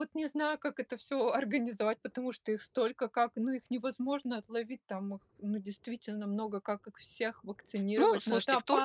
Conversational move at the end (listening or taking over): taking over